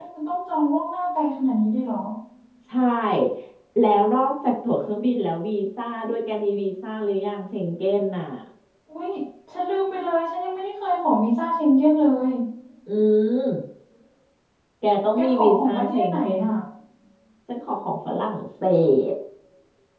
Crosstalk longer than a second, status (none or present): present